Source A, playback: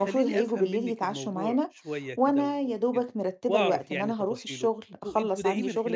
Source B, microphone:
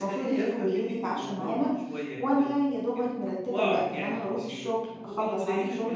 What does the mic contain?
echo only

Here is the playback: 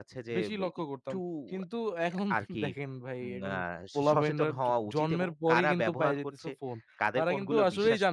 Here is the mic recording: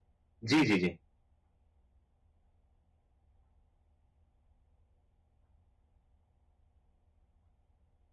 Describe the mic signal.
user only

